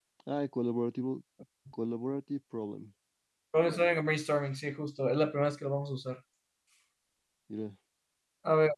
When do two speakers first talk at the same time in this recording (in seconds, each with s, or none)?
none